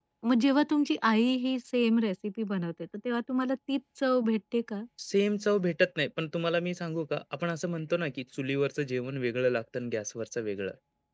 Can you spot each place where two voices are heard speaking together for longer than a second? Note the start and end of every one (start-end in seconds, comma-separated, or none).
none